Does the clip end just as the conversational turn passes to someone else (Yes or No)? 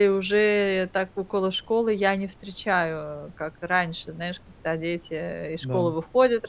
No